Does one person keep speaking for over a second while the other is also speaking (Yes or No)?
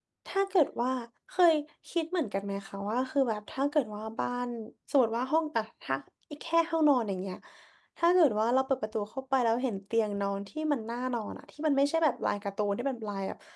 No